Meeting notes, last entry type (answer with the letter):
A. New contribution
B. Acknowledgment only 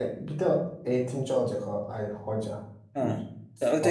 A